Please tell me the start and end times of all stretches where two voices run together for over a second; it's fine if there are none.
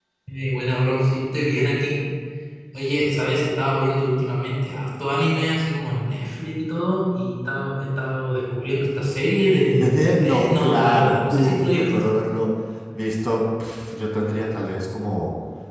9.7-12.1

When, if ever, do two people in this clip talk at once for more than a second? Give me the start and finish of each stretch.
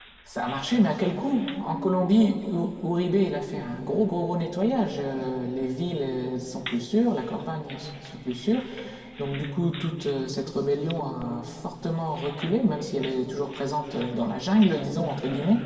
none

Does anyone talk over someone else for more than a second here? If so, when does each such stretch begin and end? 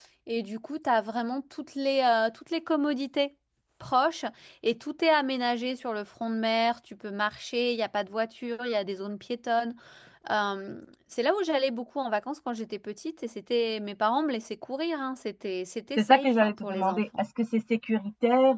16.0-17.2

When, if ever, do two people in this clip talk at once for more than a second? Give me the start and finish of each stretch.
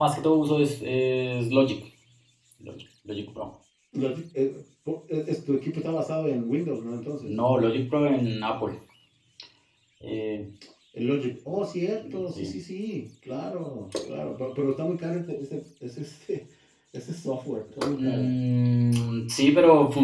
none

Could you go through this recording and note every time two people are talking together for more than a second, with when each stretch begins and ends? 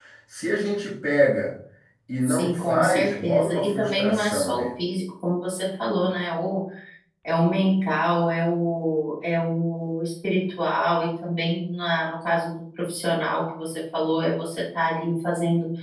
2.2-4.7

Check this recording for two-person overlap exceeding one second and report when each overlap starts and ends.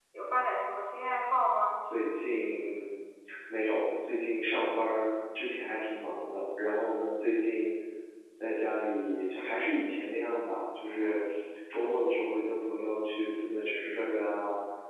none

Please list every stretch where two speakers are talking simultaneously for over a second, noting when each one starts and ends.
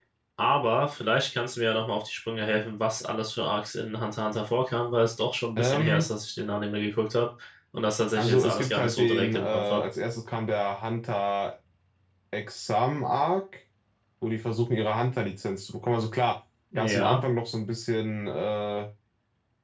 8.2-9.8

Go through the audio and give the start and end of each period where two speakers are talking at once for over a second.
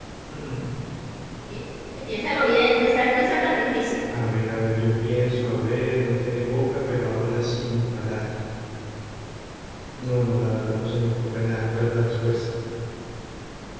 none

